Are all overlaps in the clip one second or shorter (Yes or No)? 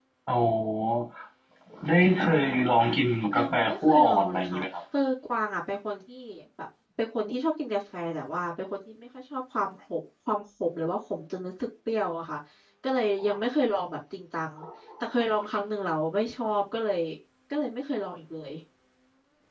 No